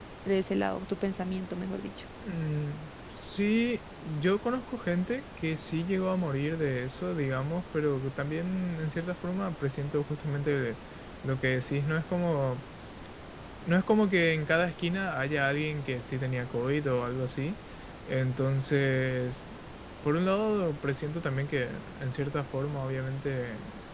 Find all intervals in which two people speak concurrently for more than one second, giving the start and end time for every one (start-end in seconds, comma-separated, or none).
none